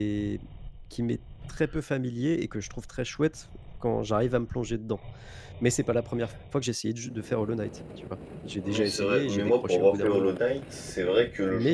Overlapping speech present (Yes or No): Yes